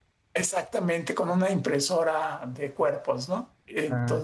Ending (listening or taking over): taking over